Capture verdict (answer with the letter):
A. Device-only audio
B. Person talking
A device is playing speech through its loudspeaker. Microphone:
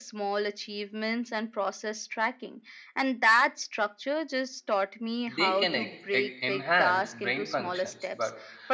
B